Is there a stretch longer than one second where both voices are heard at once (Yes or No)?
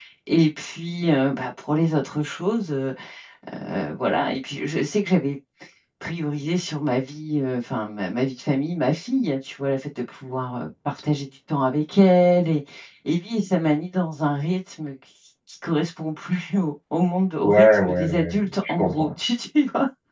Yes